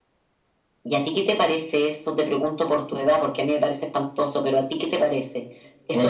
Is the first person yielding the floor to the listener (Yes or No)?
No